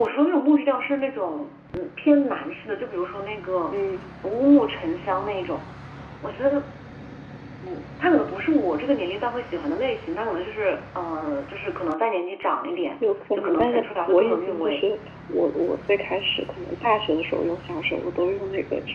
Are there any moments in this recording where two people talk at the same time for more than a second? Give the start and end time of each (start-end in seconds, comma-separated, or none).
13.4-14.8